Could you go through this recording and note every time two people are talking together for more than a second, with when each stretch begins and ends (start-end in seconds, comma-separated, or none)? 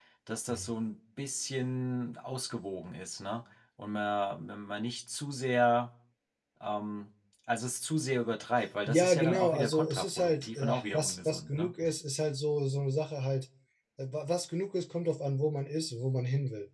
8.9-11.7